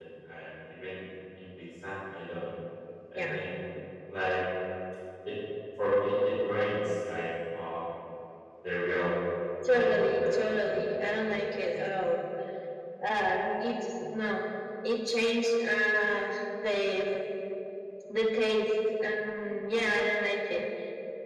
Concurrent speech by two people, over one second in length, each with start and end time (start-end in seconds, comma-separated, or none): 9.7-11.4